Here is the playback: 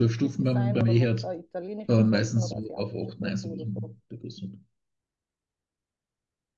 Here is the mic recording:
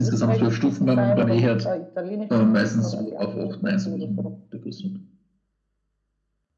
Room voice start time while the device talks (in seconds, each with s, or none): none